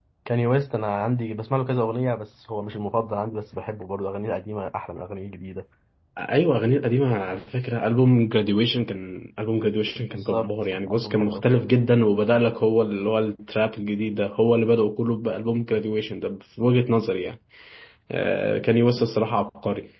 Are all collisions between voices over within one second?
No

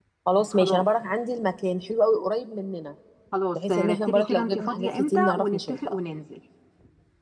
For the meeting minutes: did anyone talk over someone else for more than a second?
Yes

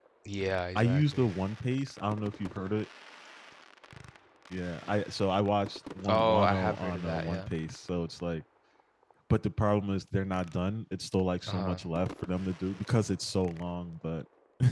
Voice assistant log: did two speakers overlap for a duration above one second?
Yes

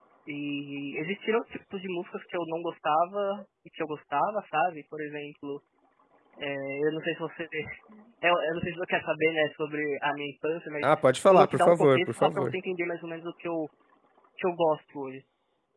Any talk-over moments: Yes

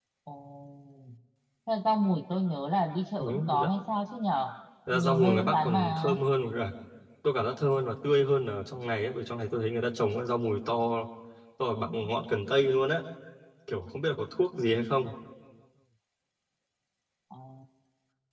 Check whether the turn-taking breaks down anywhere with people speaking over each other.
Yes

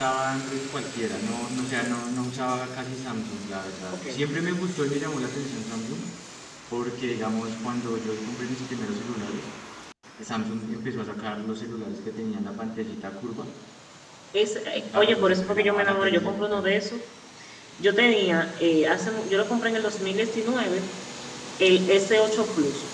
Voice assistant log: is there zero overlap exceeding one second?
No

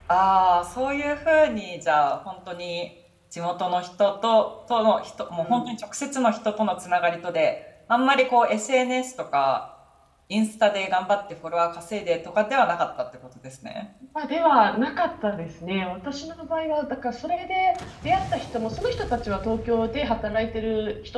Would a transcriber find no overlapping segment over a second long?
Yes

